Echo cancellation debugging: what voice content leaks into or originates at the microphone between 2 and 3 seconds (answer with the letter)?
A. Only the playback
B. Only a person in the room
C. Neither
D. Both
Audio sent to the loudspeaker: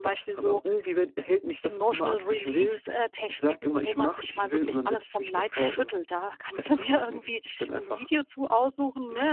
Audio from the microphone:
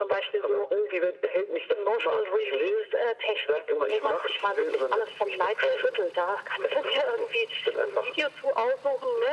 A